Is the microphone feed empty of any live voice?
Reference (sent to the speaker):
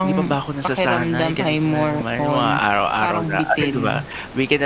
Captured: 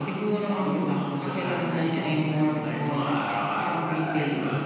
Yes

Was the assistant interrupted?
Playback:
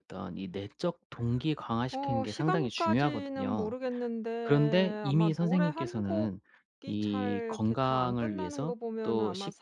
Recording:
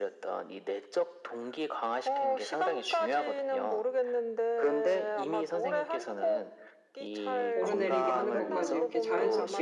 Yes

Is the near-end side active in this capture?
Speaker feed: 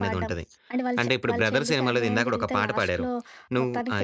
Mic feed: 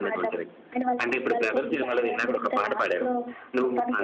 No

